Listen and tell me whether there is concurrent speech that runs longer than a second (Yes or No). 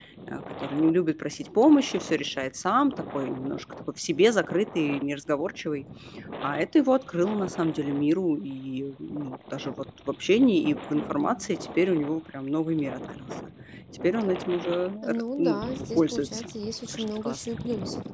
Yes